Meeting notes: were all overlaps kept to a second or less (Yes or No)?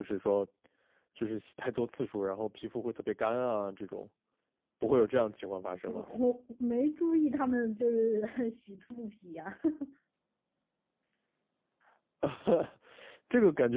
Yes